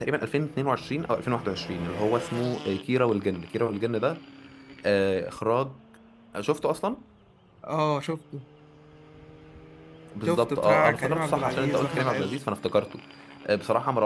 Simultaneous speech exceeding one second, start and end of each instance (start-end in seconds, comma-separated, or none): 10.2-12.4